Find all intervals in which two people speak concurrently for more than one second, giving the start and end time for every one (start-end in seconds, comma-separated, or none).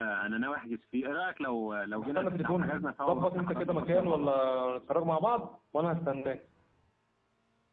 2.0-4.3